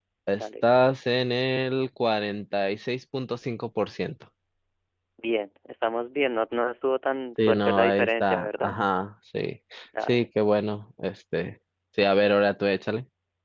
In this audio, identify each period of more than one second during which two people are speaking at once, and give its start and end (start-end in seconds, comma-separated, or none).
7.5-8.7